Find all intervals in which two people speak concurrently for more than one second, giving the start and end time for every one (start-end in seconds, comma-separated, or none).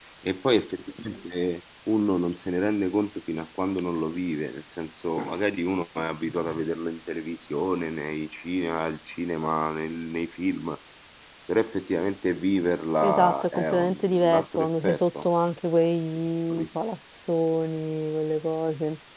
13.0-15.2